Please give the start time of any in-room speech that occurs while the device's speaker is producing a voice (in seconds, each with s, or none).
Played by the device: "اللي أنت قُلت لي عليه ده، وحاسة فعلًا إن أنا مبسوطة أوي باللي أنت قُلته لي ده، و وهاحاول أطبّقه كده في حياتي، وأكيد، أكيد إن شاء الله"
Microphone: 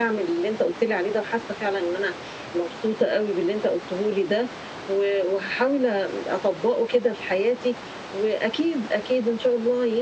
none